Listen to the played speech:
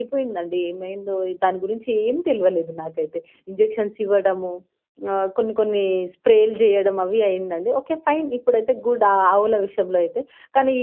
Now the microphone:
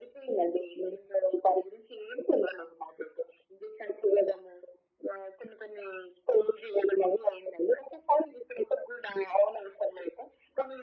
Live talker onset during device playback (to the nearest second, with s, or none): none